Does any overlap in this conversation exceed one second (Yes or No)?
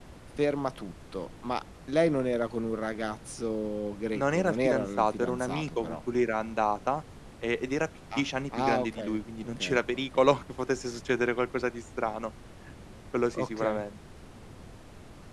Yes